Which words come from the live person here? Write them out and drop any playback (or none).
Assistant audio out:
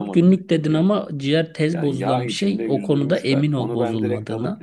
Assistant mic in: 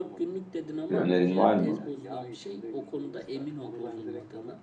Bir önerin var mı?